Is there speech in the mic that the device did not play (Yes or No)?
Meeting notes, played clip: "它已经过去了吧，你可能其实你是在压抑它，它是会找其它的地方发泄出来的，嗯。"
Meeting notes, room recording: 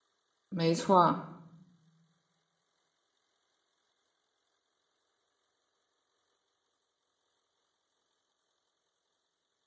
Yes